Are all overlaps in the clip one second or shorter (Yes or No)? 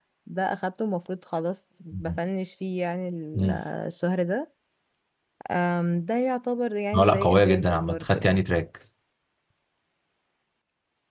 No